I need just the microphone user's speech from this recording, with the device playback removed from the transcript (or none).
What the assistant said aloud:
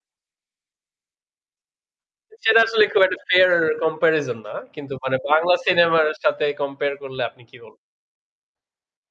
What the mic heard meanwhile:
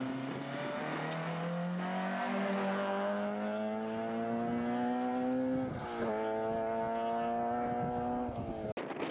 none